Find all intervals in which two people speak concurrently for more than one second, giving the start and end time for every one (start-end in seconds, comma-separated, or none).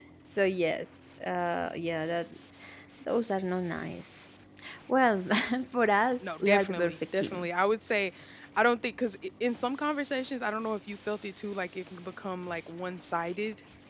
6.2-7.5